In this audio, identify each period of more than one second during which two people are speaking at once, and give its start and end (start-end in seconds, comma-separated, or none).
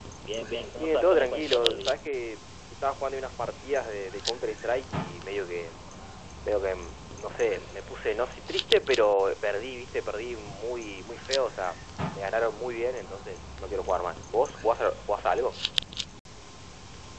0.8-2.0